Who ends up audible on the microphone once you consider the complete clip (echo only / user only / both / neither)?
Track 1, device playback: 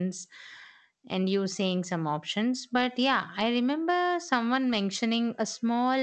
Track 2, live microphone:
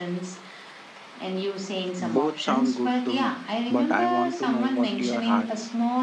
both